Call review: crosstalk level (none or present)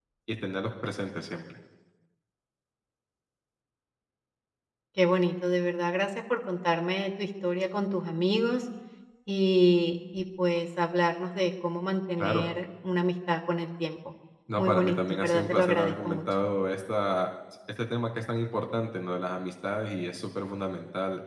present